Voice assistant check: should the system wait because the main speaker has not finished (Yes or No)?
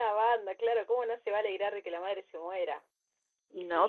No